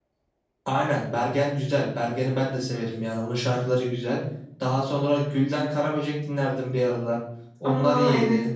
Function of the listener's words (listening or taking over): taking over